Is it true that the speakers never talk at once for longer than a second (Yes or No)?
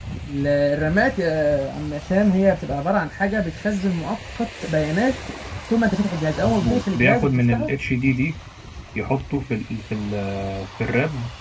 No